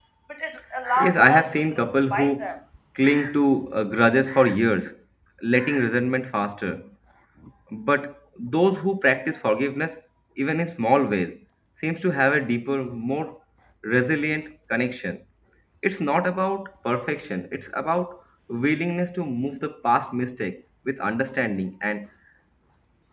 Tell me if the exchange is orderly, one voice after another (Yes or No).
No